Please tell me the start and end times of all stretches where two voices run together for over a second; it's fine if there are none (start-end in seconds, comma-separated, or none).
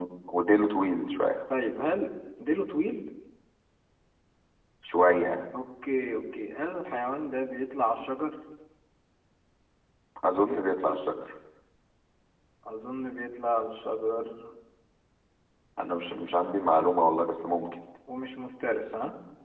none